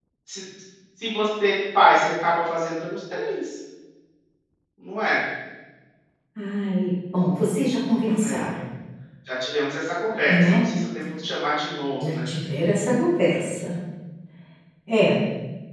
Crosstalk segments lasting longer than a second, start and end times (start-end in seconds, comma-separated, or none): none